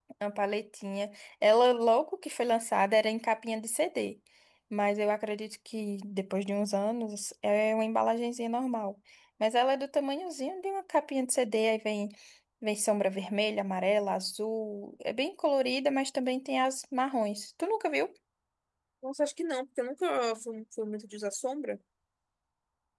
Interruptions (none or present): none